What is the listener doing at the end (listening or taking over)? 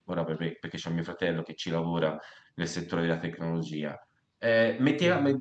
listening